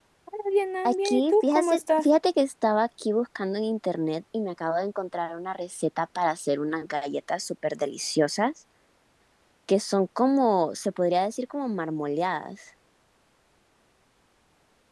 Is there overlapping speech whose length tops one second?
Yes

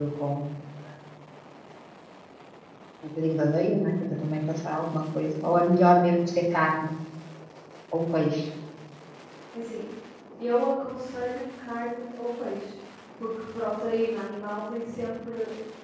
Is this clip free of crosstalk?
Yes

